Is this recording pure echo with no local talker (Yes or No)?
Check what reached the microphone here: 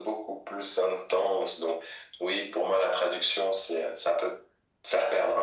Yes